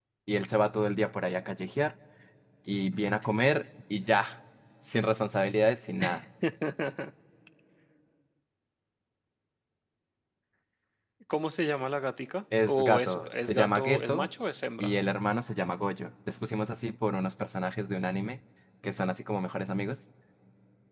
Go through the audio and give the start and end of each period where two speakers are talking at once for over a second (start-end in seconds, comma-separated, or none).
12.7-14.3